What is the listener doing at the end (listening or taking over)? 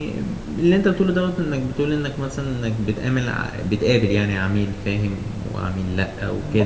taking over